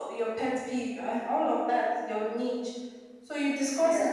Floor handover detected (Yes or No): No